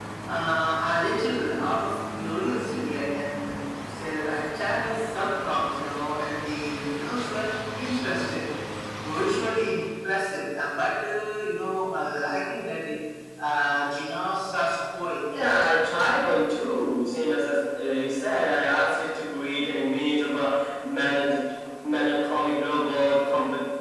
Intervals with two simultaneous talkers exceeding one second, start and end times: none

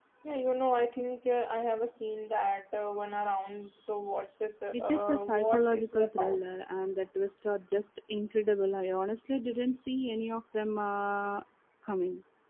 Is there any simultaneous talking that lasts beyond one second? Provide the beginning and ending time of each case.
4.7-6.4

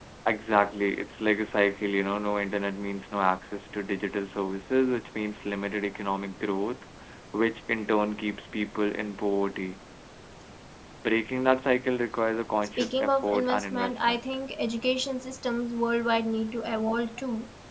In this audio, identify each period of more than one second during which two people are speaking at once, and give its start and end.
12.8-14.2

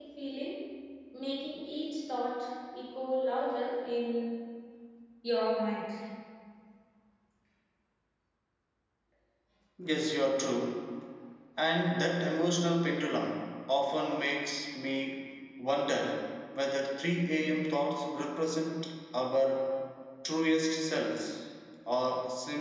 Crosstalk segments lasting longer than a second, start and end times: none

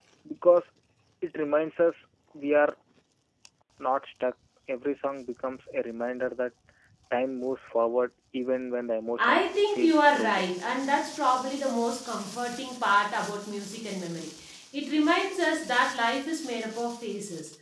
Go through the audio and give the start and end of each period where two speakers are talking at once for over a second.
9.2-10.5

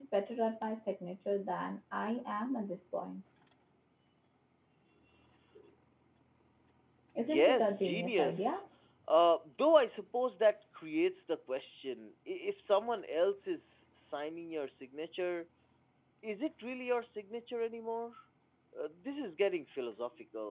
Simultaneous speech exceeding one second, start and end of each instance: 7.2-8.6

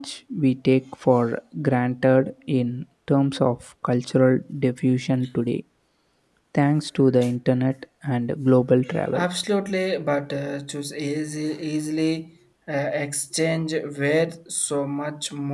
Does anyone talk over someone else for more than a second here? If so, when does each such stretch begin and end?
none

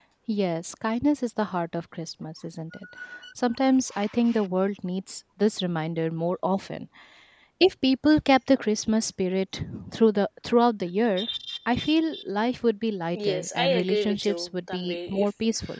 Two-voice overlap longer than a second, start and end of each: 13.1-15.3

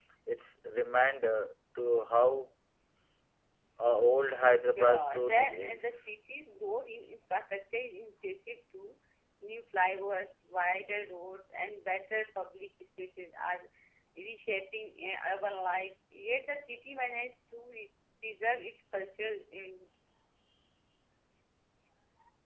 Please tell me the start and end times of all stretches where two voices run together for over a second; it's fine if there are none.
4.2-6.0

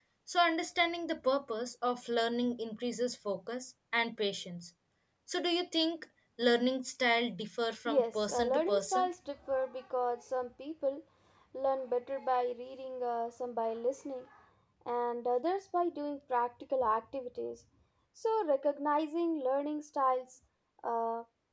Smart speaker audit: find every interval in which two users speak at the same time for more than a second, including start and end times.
7.9-9.1

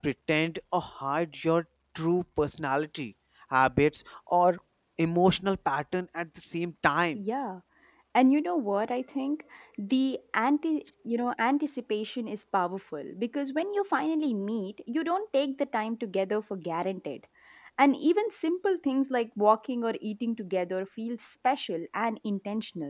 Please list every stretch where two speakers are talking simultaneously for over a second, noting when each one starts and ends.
none

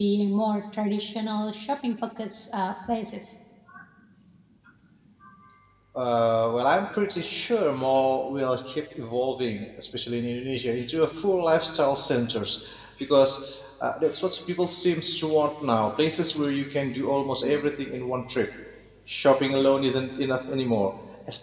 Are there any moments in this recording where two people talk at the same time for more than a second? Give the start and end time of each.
none

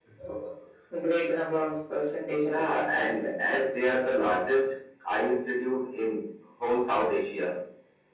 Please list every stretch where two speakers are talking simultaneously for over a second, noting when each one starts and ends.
2.3-3.7

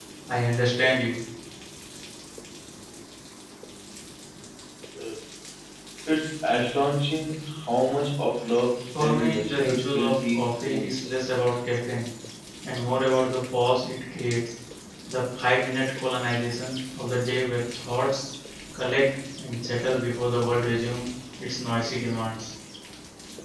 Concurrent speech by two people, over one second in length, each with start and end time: 9.0-11.0

